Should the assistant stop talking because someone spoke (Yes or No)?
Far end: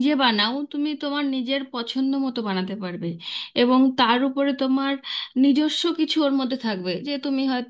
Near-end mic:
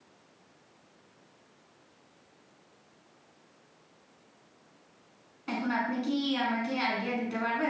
Yes